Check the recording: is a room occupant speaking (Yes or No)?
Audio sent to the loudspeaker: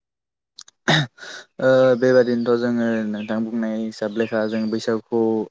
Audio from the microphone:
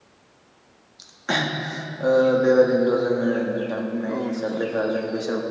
Yes